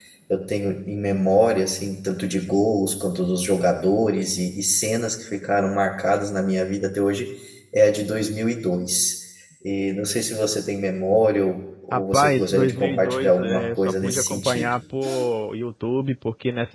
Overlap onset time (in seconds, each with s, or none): 11.9 s